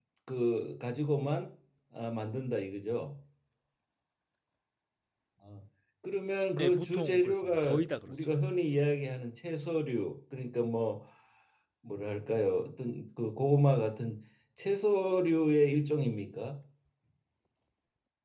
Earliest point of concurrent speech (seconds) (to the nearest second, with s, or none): 7 s